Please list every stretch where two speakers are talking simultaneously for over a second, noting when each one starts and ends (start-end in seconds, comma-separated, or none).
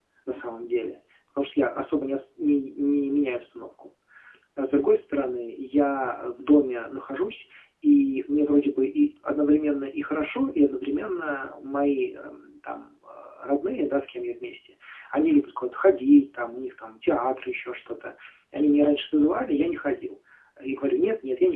none